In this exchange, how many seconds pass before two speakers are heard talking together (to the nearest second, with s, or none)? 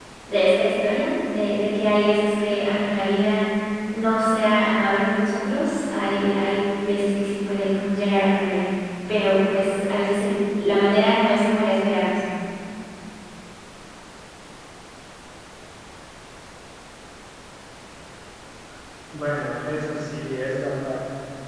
none